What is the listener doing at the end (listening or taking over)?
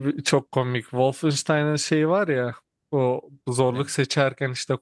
listening